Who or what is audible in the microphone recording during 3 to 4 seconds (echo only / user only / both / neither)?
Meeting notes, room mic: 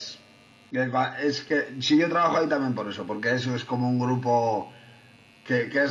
echo only